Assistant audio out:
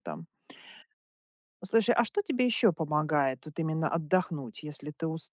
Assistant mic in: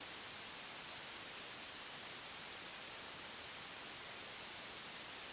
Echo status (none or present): none